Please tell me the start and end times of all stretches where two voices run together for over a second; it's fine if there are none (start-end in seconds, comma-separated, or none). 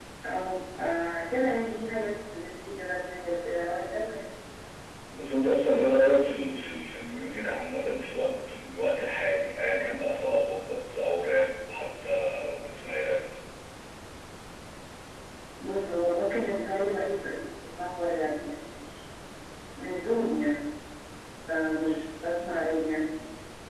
none